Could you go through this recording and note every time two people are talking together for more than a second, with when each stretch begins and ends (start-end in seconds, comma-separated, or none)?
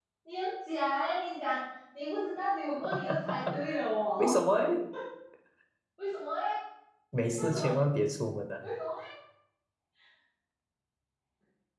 none